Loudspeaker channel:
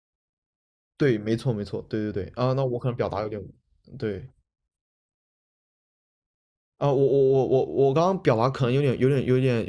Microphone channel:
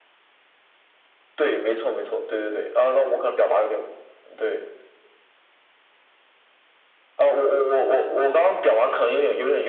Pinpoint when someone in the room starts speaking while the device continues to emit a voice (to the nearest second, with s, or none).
none